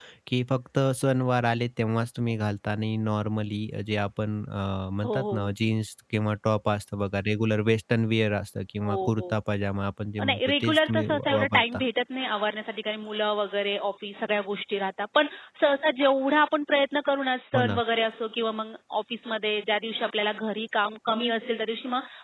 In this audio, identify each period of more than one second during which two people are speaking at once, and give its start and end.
10.2-11.8

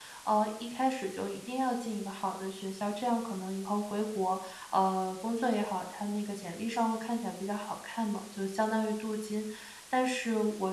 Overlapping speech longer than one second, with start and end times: none

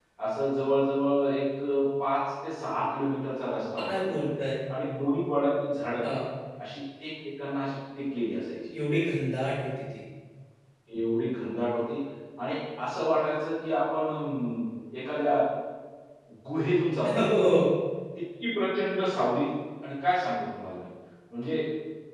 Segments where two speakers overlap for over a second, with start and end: none

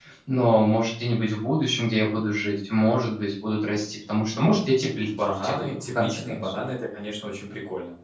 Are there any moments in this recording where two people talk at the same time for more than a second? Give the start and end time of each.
5.0-6.6

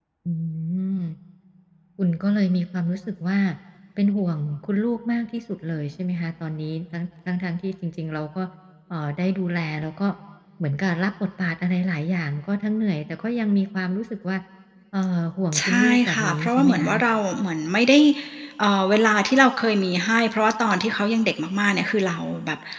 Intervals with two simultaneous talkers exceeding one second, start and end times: 15.6-16.9

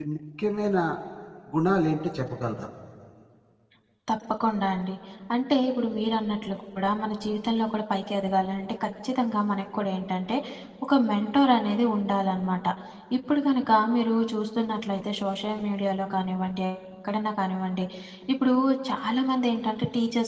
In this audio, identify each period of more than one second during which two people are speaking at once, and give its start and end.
none

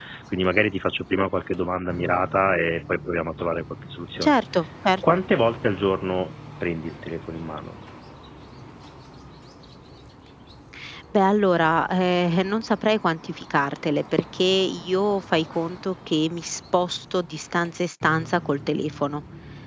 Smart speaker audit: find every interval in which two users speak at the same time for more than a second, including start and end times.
none

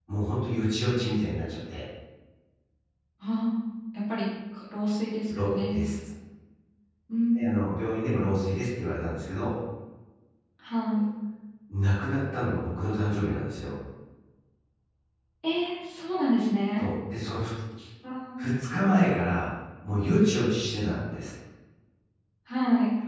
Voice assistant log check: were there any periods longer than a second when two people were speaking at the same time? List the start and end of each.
none

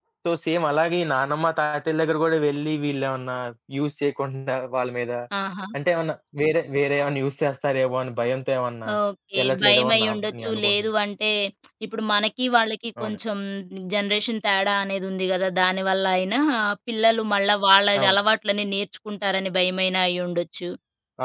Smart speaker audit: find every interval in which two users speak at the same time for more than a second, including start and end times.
9.4-10.9

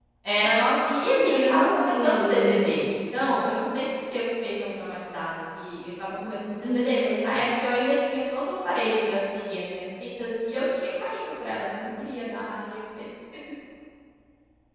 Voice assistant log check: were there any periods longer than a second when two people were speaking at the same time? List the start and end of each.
1.1-2.8

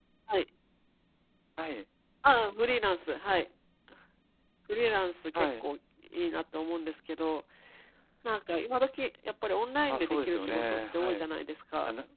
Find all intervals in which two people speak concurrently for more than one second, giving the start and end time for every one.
9.9-11.2

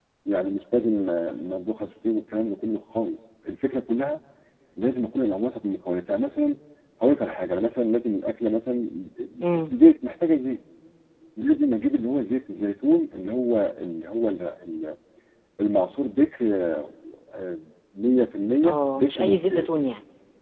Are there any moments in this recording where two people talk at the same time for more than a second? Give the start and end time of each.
18.6-19.9

